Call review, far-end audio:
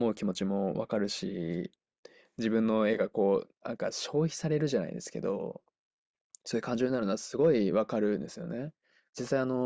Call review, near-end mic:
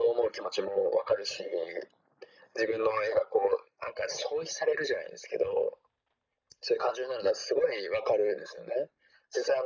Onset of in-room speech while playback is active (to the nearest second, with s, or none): none